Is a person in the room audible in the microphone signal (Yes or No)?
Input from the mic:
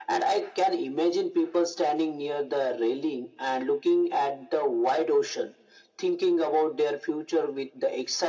No